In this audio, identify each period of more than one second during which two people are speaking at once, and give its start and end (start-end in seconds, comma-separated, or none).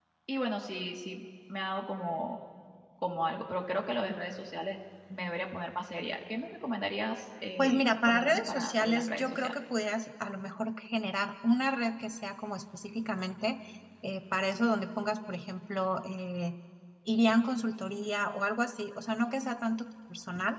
7.6-9.5